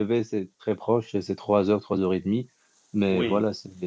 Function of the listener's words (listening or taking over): listening